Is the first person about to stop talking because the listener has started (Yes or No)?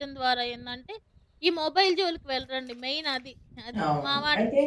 Yes